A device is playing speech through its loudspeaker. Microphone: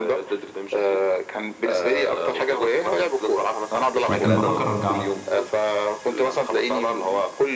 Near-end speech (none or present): present